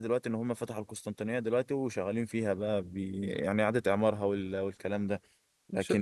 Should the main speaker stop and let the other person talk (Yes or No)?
Yes